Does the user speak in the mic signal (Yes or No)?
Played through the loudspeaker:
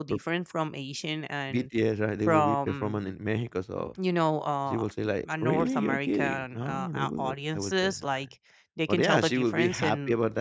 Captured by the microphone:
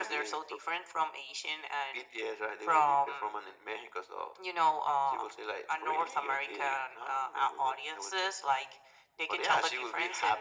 No